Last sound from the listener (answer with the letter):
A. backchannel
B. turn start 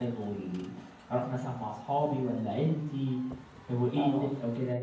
B